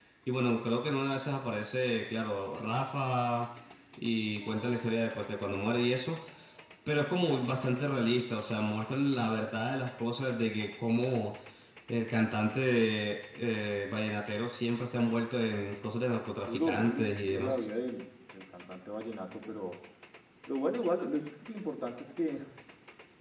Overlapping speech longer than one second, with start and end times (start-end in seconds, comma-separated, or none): 16.4-17.7